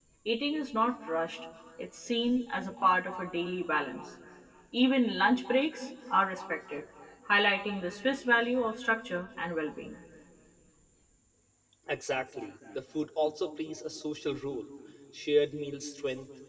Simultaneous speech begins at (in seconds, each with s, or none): none